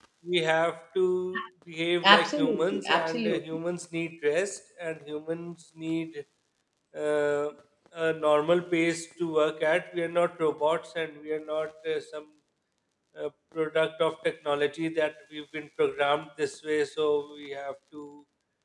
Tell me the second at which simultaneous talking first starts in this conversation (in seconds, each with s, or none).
2.0 s